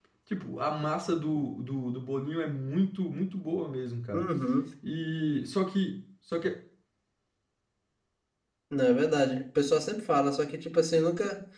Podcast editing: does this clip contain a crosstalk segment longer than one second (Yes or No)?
No